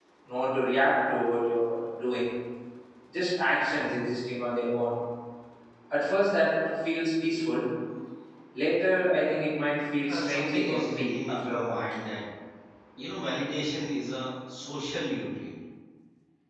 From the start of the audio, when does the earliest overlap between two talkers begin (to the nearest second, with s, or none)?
10 s